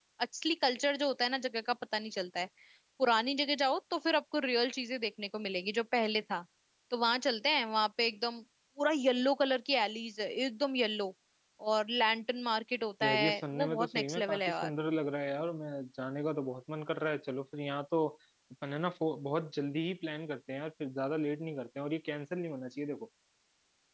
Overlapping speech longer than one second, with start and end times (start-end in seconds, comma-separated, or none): 13.0-14.7